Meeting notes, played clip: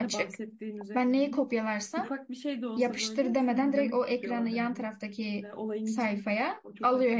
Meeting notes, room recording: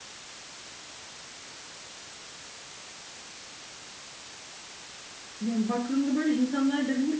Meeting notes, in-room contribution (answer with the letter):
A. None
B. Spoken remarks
B